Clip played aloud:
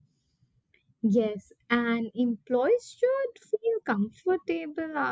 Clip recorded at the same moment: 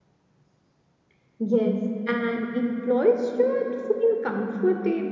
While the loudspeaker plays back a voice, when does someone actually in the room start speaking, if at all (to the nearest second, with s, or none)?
none